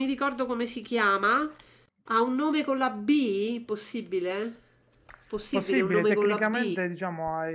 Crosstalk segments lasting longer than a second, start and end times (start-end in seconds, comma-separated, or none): 5.5-6.7